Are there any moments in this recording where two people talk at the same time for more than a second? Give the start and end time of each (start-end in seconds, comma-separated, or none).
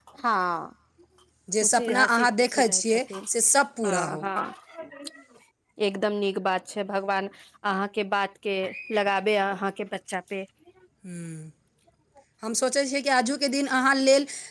1.6-3.0